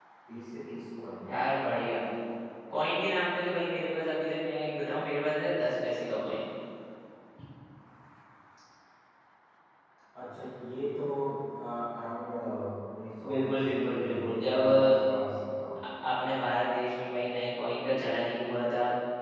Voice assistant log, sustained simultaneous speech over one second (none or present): present